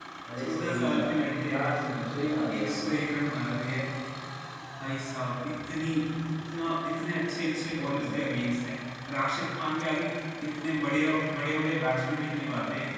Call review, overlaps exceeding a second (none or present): present